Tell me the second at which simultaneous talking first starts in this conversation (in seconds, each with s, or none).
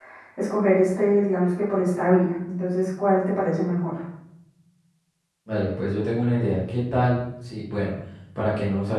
none